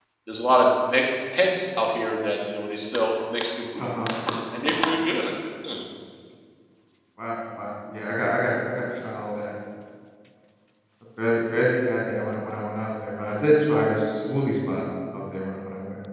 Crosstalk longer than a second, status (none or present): none